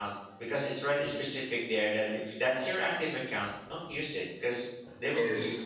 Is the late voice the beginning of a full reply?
No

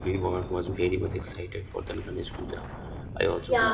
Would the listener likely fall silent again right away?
No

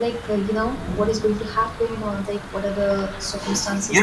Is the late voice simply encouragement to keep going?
No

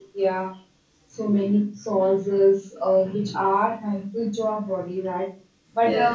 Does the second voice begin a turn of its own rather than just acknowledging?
No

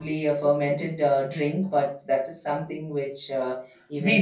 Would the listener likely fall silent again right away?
No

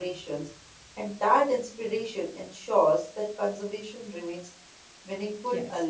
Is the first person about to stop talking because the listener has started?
Yes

